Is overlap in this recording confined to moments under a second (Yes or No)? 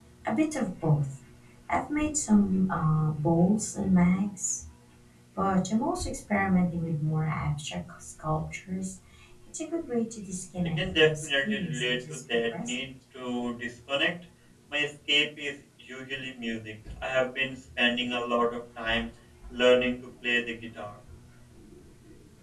No